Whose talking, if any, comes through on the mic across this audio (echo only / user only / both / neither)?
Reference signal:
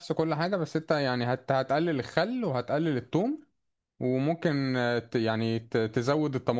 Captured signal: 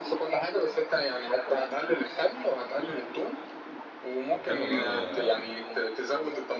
both